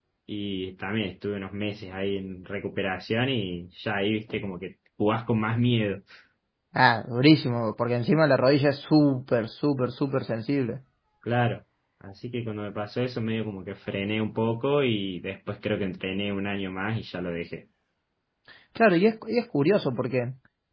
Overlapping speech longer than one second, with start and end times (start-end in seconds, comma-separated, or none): none